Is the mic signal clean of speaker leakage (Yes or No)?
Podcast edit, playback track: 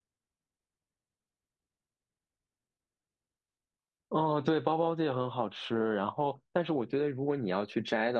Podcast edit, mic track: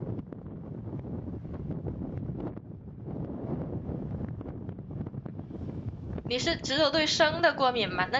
Yes